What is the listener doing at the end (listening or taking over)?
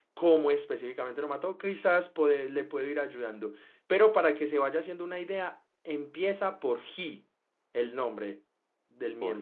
taking over